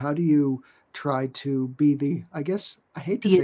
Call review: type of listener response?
listening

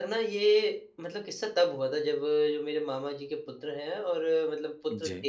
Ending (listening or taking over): listening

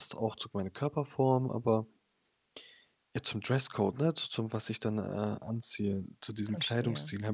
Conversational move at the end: listening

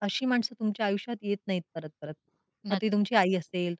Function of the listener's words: listening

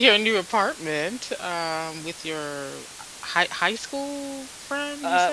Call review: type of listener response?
taking over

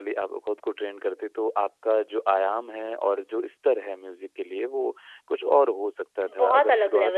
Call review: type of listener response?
taking over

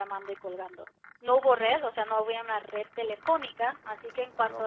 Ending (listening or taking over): listening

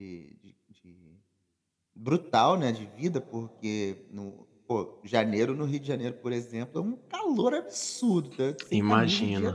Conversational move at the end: listening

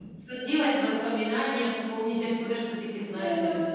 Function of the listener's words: taking over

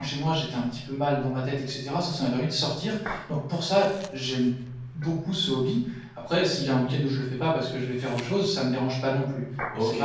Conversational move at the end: taking over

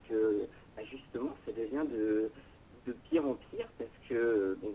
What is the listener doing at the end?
listening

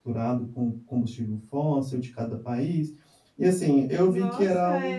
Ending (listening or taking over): taking over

